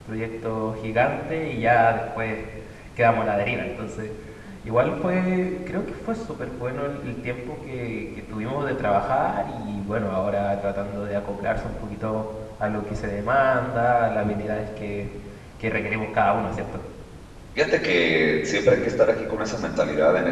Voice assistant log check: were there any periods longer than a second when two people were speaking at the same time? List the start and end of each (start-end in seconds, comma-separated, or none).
none